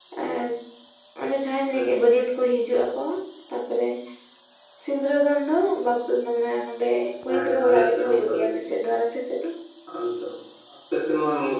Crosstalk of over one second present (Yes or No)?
Yes